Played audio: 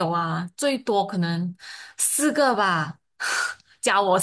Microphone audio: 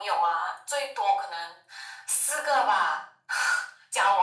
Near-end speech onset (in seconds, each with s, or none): none